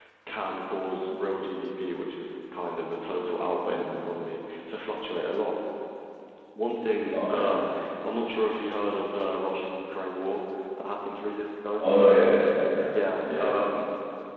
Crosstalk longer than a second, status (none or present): none